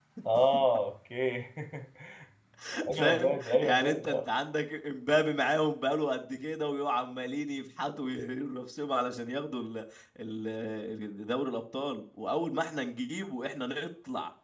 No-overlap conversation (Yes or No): No